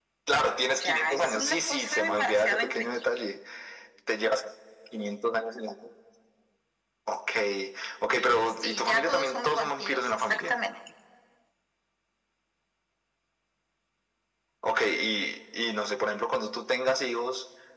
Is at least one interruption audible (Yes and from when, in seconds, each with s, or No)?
Yes, from 0.8 s